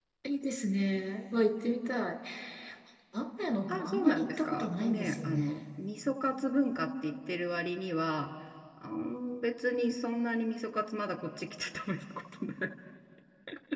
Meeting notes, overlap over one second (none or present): present